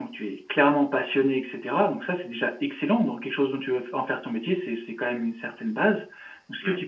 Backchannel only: Yes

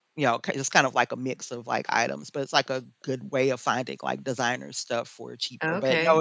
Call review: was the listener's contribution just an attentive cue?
No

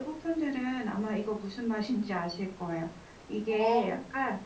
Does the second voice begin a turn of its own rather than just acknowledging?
No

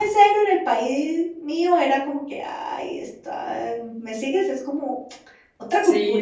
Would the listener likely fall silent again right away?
No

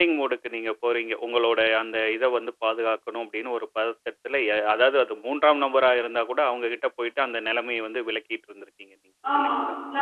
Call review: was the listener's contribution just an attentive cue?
No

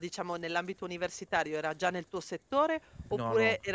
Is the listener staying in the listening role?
Yes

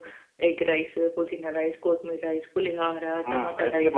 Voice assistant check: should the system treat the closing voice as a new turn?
Yes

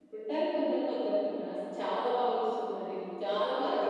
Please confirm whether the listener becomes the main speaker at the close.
Yes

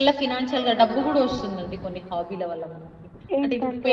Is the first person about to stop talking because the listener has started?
No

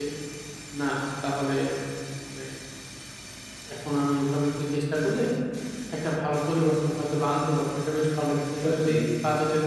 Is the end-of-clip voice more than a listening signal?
No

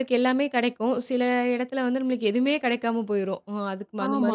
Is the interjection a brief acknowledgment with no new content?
No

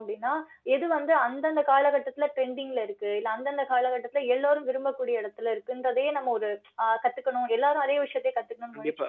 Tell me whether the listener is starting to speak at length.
Yes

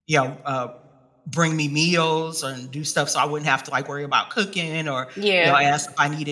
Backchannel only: Yes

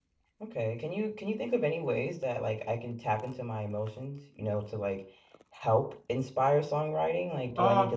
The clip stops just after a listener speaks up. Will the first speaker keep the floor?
No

